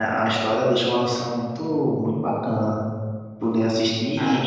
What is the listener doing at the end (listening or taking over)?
listening